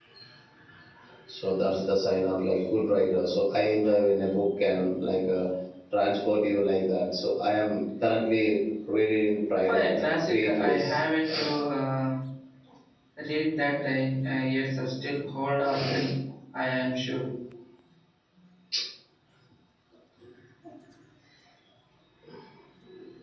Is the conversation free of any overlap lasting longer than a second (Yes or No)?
No